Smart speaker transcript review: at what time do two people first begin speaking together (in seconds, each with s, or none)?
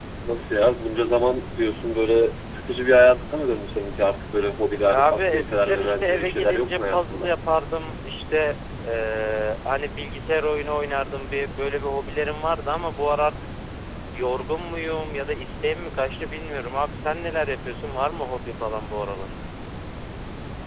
4.8 s